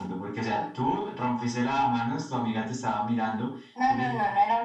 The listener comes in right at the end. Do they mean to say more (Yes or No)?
Yes